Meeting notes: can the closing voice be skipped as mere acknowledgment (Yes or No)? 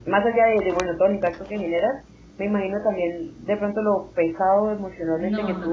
Yes